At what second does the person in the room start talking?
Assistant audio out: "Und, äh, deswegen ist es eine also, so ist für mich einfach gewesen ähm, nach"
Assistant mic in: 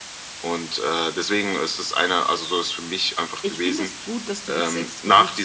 3.4 s

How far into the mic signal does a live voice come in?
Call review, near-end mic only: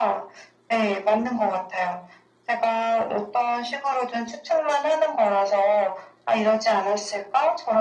none

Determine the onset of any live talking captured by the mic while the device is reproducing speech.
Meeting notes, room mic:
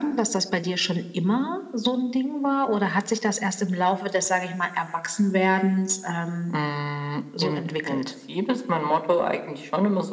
none

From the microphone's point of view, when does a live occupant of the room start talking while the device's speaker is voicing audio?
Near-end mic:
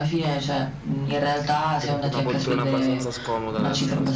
1.7 s

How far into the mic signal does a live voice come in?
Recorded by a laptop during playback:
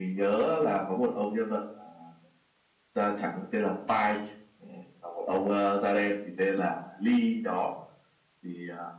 none

